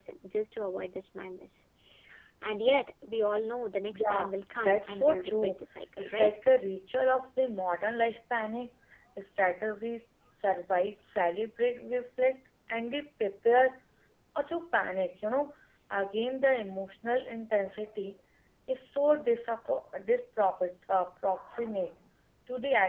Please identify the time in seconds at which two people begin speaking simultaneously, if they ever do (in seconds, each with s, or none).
3.9 s